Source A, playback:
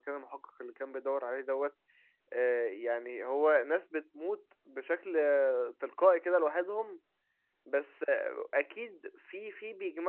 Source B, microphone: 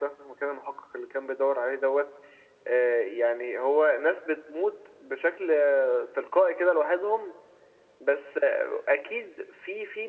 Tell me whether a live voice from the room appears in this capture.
No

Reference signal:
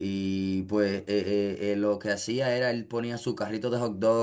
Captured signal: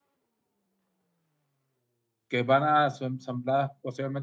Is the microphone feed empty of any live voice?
No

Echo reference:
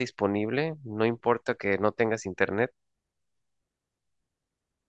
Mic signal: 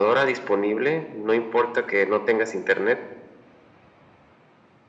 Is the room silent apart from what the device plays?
Yes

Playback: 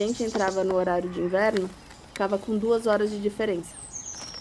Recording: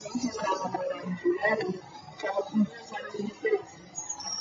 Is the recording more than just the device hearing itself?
No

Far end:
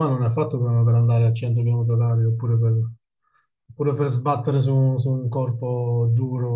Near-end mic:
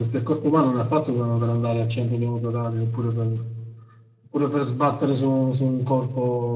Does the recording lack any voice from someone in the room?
Yes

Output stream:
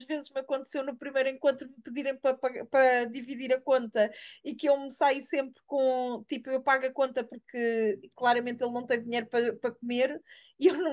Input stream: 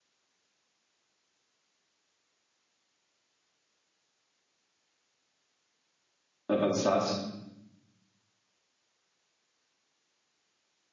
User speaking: Yes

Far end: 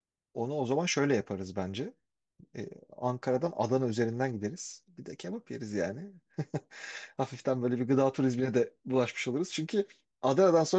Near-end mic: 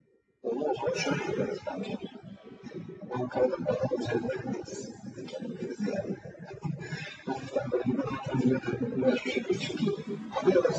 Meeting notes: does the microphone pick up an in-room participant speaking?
No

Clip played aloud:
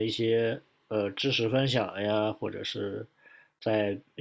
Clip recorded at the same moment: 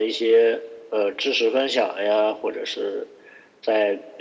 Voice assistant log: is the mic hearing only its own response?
Yes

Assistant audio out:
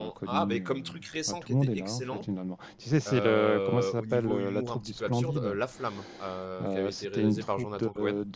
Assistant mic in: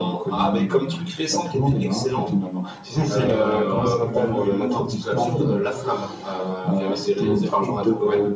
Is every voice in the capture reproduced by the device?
Yes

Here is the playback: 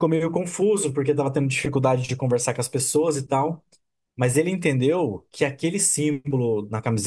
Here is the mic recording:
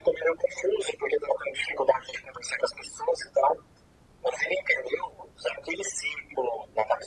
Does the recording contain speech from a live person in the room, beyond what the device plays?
No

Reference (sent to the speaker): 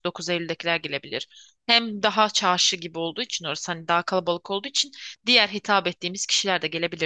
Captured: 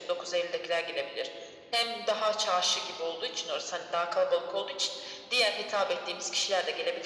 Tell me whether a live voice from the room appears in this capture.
No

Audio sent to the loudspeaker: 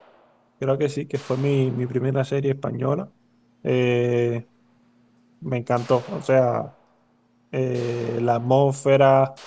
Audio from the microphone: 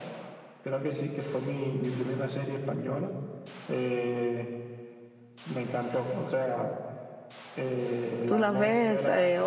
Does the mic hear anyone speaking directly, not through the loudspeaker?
Yes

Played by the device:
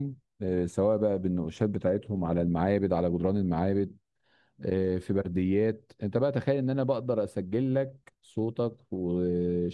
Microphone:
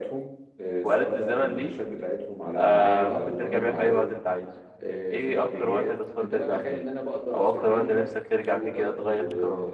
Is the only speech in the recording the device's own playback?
No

